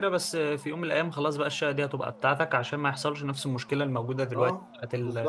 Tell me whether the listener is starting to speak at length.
Yes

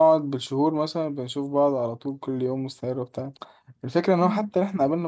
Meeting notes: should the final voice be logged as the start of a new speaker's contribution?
No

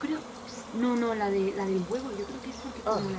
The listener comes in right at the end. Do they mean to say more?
No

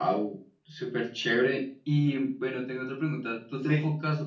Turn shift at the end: No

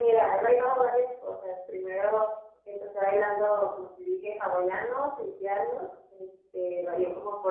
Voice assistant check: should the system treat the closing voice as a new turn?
No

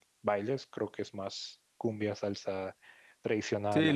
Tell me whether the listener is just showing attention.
No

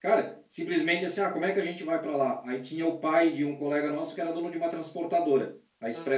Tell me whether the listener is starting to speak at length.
No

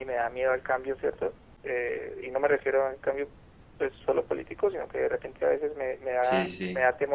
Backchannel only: Yes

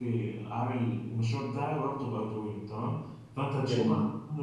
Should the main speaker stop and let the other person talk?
No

